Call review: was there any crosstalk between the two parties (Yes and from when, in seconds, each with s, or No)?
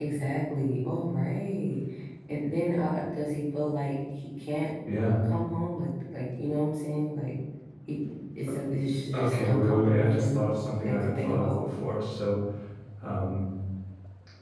Yes, from 9.1 s